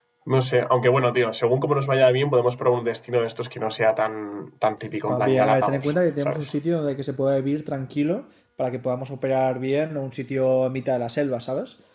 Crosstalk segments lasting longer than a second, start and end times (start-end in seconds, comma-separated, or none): 5.1-6.5